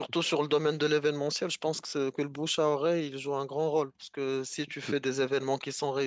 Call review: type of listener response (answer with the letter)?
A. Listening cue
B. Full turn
A